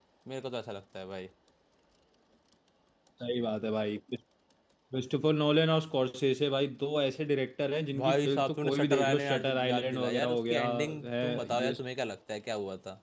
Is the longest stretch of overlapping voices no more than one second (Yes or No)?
No